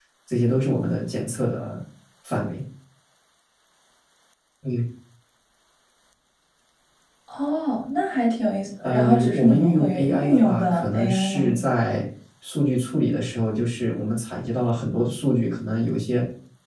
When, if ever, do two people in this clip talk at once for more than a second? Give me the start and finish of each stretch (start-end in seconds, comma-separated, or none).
8.8-11.5